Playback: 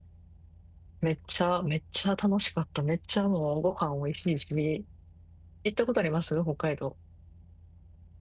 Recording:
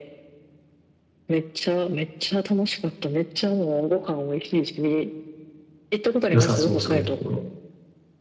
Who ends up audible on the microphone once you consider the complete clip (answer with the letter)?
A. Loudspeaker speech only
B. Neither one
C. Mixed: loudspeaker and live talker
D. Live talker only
C